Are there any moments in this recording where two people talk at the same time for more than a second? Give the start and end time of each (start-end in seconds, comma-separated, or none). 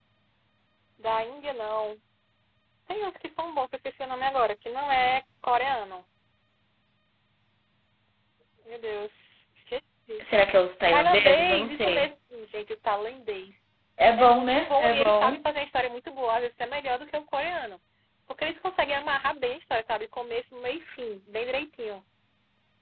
10.9-12.1, 14.2-15.4